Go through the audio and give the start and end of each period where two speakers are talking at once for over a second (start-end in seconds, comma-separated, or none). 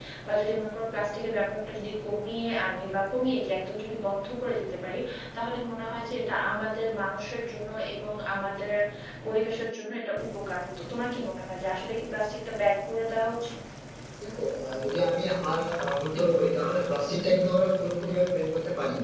none